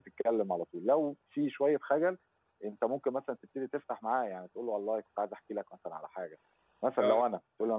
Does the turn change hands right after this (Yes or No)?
No